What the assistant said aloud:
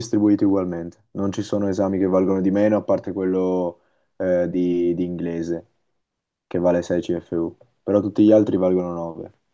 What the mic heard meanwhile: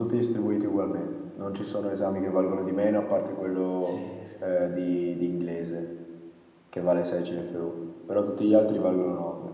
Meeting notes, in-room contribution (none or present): present